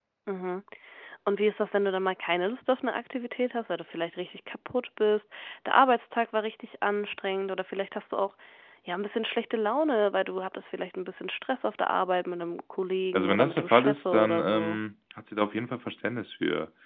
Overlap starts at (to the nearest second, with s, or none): 13 s